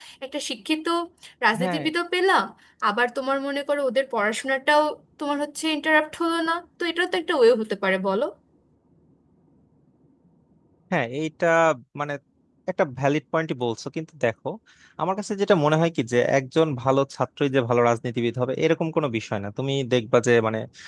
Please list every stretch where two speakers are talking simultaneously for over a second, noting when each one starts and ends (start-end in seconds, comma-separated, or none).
none